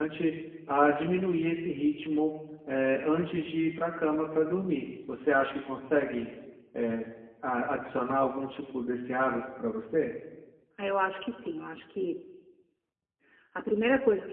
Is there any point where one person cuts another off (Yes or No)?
No